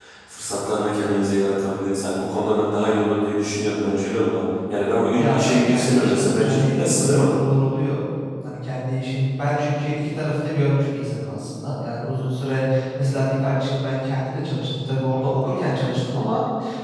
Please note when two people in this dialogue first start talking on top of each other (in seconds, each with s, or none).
5.2 s